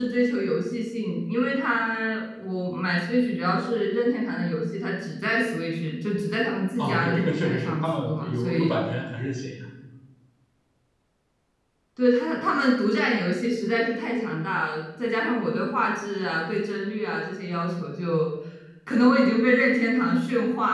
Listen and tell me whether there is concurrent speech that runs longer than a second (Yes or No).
Yes